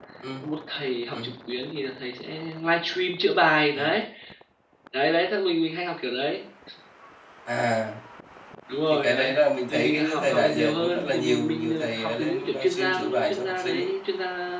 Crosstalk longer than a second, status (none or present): present